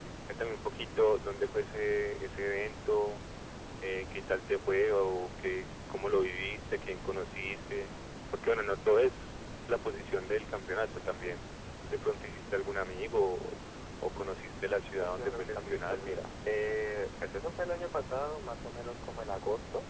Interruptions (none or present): present